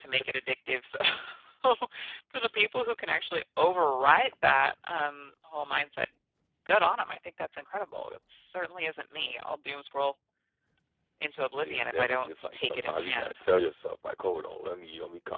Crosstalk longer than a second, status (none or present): present